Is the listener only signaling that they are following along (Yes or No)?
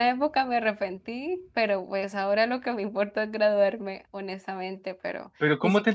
No